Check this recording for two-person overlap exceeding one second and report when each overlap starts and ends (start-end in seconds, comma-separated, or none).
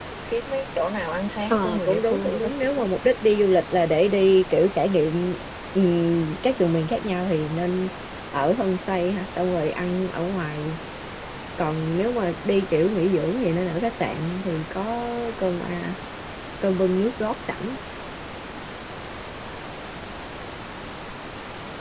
1.5-2.9